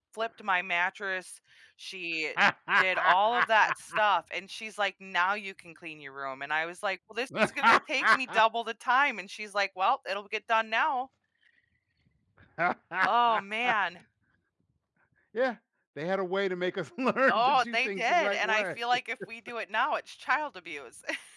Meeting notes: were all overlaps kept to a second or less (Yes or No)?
No